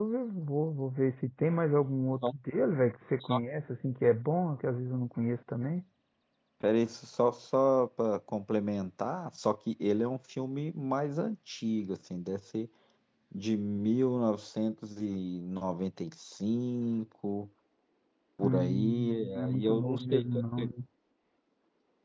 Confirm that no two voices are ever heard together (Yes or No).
No